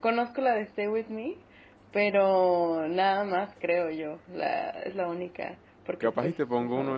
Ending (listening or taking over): taking over